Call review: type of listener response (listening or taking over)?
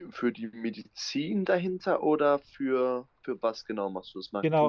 taking over